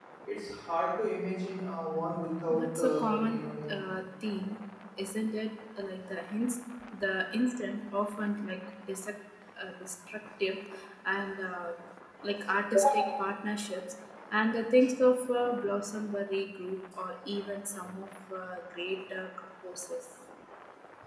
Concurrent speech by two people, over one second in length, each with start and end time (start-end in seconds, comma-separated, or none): 2.5-3.7